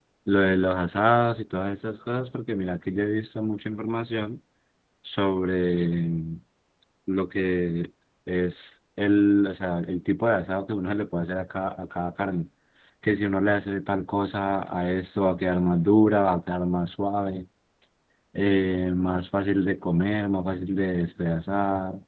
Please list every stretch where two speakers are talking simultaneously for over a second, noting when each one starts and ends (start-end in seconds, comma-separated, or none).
none